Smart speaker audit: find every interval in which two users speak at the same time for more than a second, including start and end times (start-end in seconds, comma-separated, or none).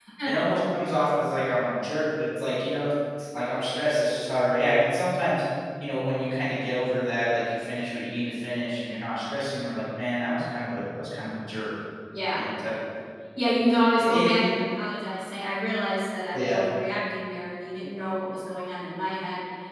none